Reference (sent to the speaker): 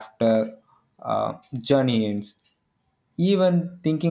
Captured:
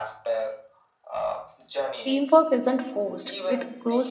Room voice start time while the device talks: 2.0 s

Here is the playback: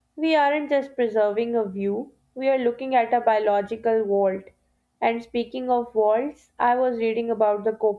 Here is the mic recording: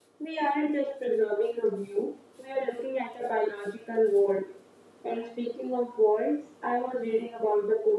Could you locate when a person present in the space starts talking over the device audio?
none

